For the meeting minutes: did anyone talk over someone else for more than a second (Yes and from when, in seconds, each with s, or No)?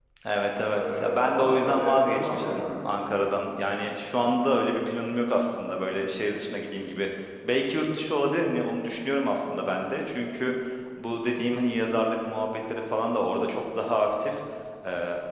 Yes, from 0.8 s